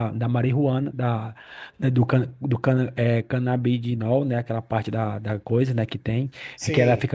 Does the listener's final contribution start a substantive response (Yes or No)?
No